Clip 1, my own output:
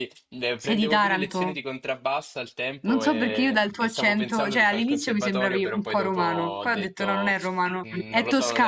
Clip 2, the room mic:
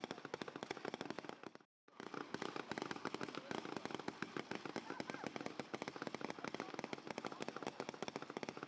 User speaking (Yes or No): No